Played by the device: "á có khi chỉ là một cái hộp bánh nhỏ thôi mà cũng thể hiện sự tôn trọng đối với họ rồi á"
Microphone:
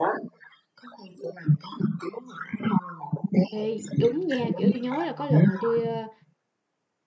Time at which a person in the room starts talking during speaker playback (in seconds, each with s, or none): 3.5 s